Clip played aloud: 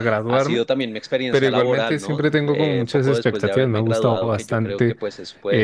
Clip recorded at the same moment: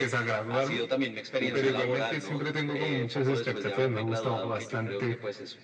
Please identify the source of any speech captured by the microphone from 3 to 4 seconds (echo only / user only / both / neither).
echo only